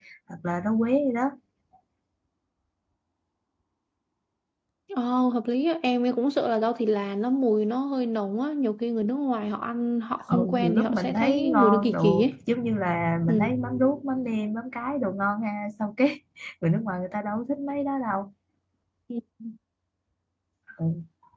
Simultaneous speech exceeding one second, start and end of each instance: 10.3-12.3

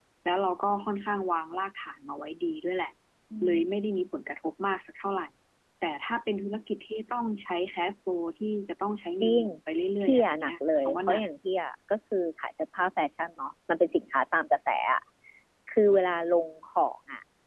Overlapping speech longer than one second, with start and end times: 10.0-11.2

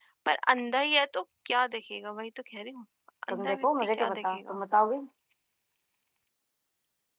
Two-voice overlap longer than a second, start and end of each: 3.3-4.6

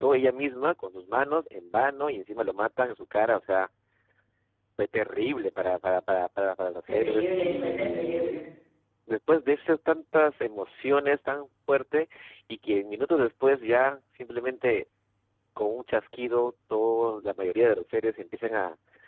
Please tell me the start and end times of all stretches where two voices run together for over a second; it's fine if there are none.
6.9-8.4

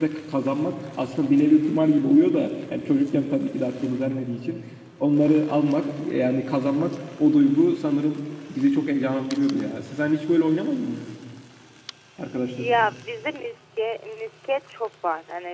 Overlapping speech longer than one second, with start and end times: none

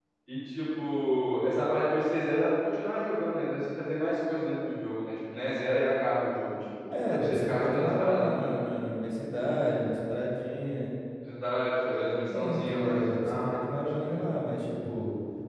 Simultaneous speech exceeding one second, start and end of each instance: 6.9-8.6, 12.3-14.2

